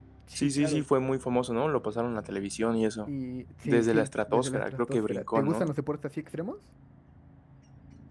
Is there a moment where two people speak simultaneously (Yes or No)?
Yes